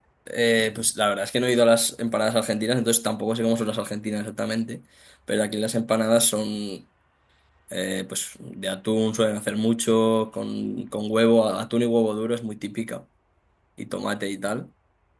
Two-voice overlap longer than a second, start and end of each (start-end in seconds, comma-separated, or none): none